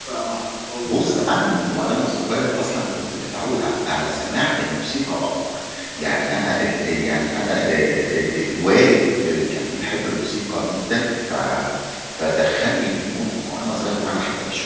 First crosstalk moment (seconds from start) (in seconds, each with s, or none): 0.8 s